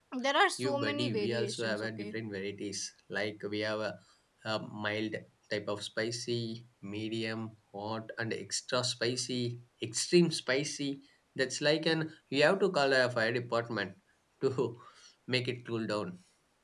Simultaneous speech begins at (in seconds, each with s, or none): 0.6 s